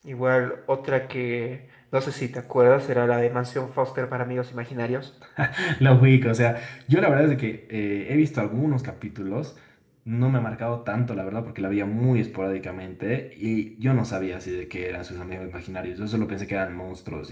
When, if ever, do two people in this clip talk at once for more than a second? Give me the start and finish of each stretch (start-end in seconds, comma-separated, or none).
none